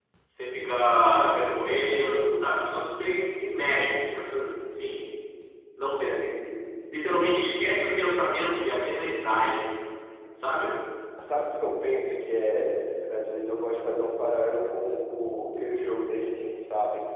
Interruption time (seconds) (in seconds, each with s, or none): none